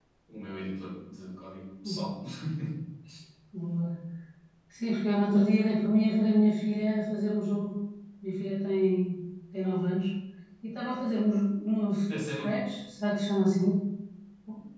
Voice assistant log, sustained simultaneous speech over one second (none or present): none